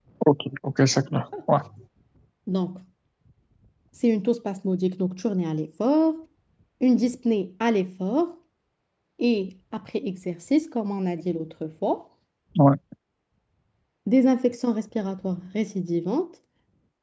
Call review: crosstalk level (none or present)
none